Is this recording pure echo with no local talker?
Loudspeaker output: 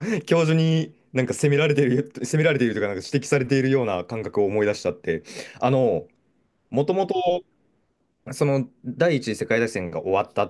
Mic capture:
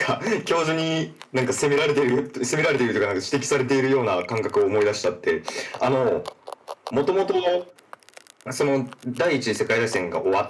Yes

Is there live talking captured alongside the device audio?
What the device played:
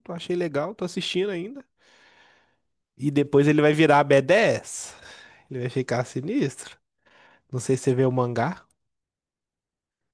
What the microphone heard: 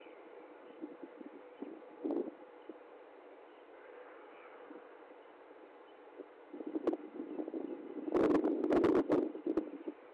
No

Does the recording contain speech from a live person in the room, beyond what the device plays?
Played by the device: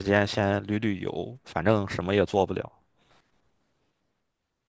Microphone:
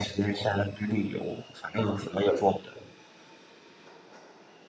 No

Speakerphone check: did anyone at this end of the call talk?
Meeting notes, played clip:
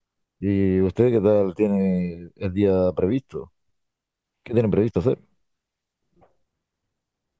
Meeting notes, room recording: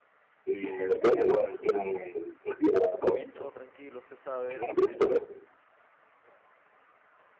Yes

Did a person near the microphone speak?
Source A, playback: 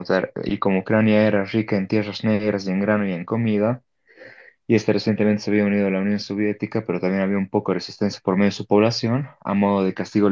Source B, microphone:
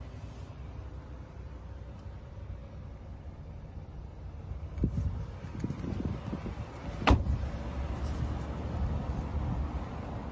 No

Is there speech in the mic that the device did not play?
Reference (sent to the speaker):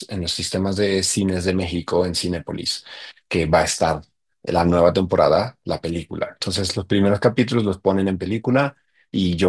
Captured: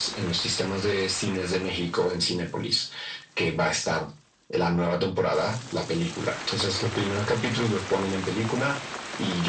No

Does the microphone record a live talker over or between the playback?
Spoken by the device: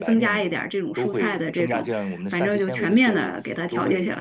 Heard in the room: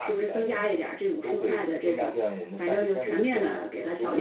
No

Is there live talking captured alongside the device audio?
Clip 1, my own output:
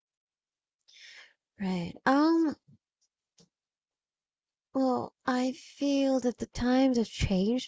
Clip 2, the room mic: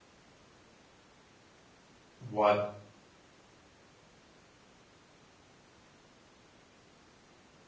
Yes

